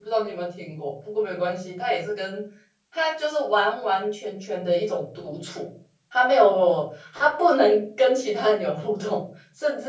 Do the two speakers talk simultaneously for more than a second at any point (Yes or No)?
No